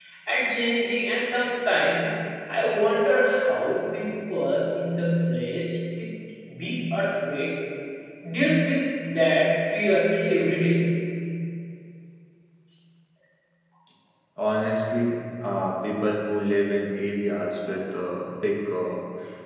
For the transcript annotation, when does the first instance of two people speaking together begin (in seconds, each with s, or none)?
none